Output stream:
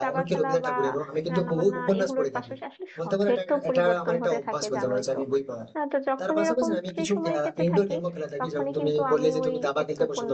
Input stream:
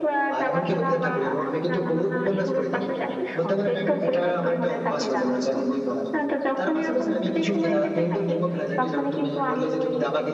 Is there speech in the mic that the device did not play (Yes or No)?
No